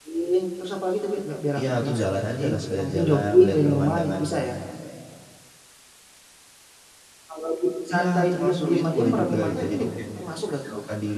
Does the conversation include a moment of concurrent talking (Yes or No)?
Yes